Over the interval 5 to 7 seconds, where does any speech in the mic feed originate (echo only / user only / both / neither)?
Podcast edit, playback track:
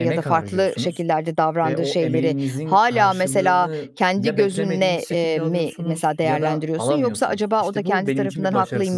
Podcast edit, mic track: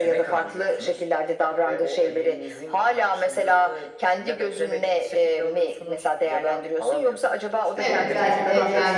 echo only